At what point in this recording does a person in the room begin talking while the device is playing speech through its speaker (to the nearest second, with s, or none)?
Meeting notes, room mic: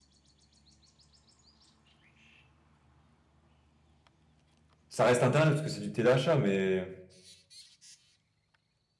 5 s